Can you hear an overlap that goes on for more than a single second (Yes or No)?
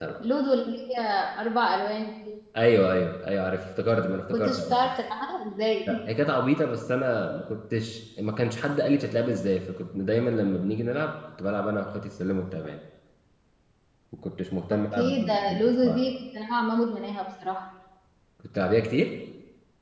Yes